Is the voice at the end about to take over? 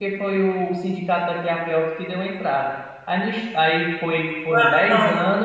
No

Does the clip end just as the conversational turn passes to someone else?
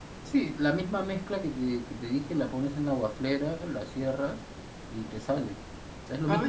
Yes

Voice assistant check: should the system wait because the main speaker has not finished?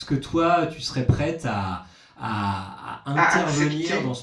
Yes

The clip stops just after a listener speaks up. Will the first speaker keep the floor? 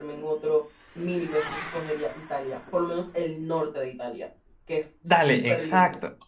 No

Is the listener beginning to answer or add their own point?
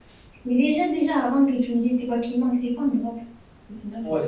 Yes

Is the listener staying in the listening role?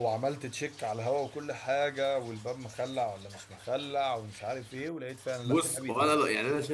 No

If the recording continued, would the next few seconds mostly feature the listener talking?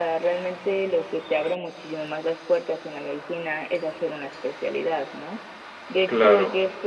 No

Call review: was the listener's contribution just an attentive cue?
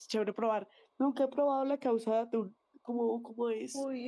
No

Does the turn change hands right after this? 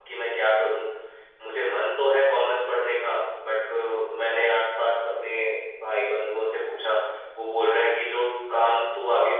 No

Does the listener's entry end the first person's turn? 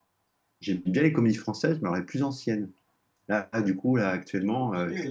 No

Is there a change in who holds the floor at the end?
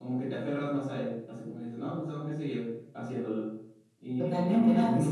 Yes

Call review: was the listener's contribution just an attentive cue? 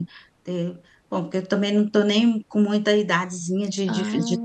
Yes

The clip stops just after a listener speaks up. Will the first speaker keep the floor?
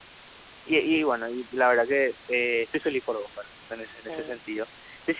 Yes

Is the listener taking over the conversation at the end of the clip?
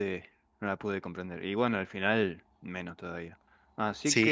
Yes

